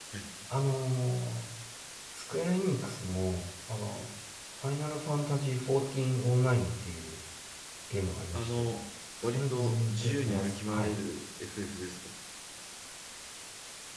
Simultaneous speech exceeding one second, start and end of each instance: 9.2-11.0

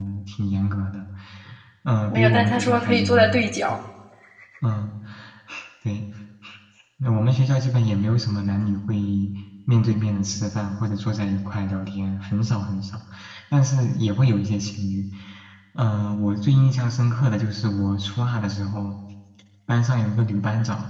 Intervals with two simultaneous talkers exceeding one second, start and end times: 2.1-3.7

